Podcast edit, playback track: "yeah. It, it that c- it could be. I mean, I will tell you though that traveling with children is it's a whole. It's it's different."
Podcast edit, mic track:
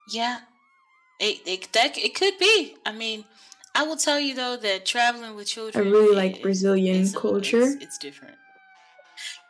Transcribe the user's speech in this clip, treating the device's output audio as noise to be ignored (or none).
I really like Brazilian culture.